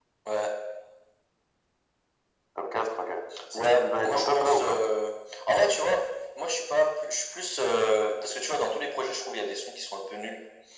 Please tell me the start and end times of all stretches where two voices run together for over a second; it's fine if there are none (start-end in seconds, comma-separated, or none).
3.6-4.8